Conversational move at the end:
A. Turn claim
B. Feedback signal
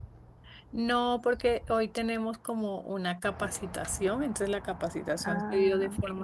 B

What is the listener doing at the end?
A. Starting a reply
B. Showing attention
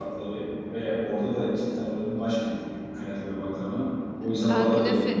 A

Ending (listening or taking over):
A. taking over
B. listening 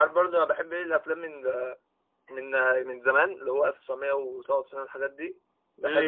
B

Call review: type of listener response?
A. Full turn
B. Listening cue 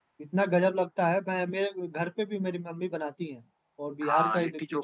A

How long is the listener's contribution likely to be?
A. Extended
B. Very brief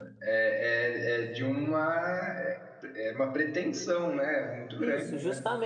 A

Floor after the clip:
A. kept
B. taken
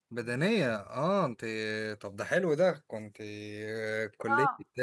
B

